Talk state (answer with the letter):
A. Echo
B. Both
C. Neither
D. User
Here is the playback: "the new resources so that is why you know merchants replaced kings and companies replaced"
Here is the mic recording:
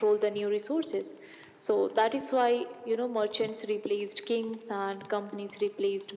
A